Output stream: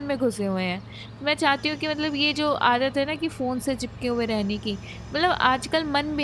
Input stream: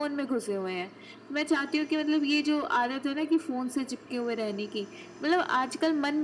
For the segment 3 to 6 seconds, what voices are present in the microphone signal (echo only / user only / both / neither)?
echo only